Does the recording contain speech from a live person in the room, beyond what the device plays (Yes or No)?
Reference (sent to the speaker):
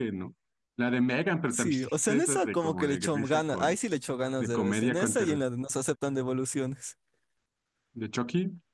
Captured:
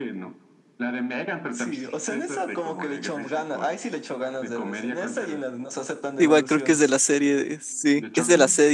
Yes